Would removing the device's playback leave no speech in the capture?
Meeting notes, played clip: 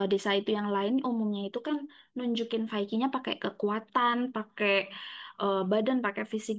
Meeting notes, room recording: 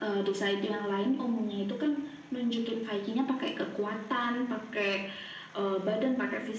Yes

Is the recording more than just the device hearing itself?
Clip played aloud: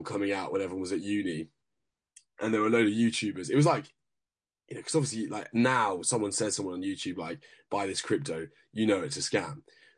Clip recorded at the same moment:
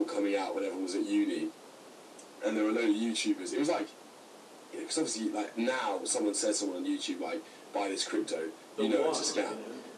Yes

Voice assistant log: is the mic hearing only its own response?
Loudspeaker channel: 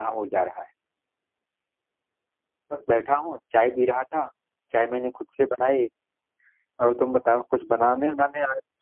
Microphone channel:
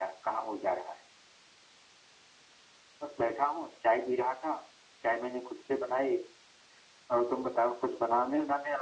Yes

